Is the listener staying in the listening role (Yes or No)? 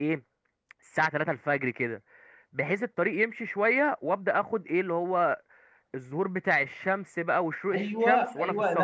No